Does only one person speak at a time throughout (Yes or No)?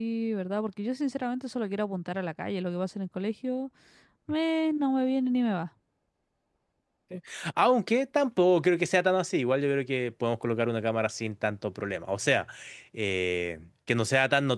Yes